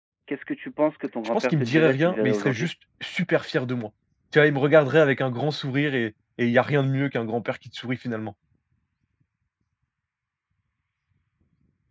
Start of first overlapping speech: 1 s

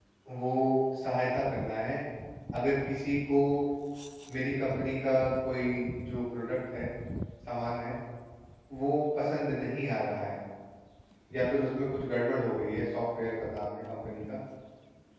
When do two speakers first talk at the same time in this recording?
none

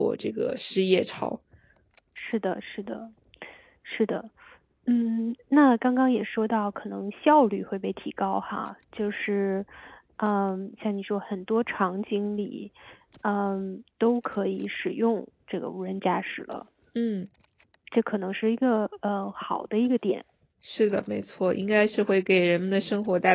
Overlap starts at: none

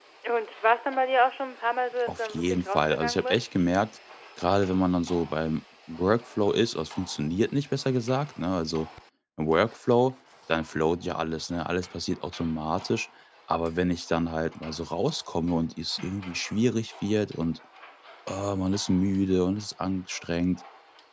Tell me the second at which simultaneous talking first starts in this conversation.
2 s

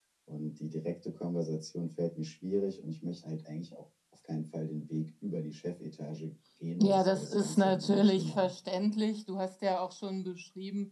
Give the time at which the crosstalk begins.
7 s

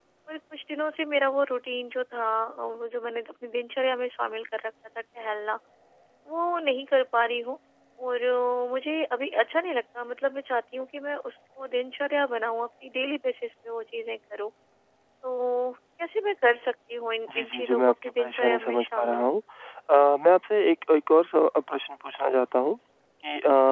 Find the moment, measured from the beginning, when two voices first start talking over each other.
17 s

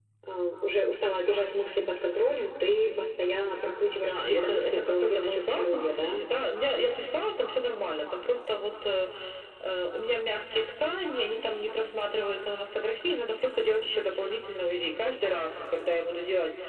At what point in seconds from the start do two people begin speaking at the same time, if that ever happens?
4 s

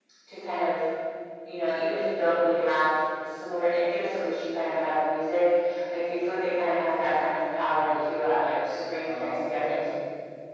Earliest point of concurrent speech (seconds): 8 s

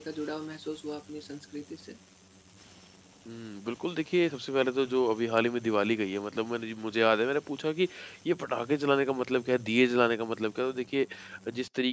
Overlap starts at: none

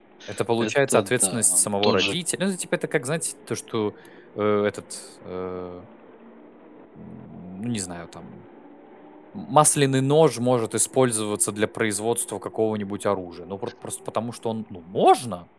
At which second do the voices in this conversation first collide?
1 s

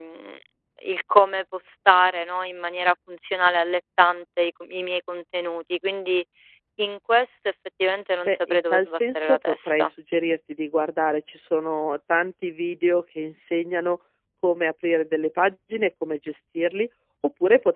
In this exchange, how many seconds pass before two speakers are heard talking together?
8 s

